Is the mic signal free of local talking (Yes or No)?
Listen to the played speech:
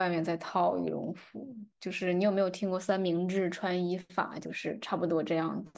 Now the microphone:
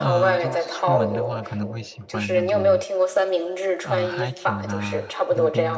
No